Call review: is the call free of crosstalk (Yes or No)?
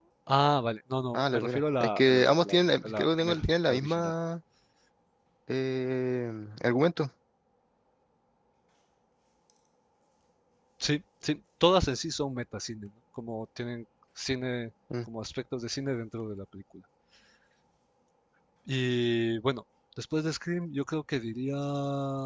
No